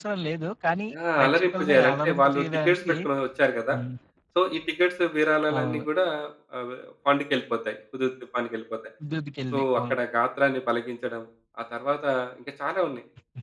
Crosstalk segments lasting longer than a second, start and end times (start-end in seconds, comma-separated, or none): 1.2-2.9